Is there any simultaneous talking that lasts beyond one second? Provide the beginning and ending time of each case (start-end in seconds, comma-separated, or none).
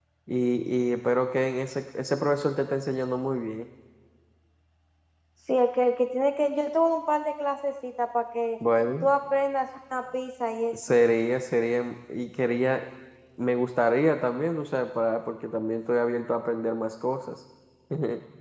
none